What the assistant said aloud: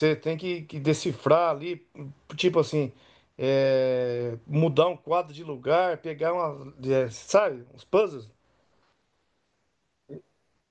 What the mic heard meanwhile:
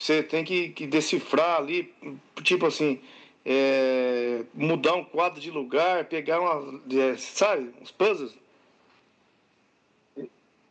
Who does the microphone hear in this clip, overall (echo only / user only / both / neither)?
echo only